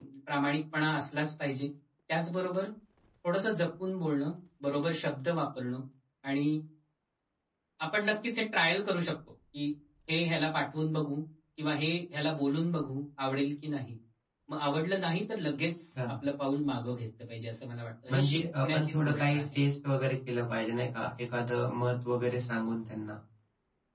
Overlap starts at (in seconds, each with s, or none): 18.1 s